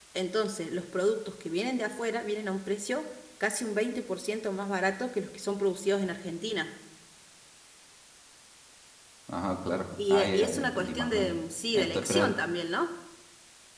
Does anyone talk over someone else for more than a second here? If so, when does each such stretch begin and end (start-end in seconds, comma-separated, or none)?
10.1-11.3